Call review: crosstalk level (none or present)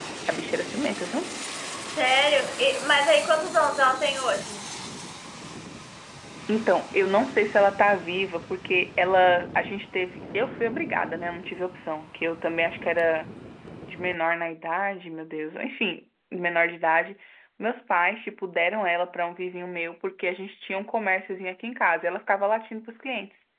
none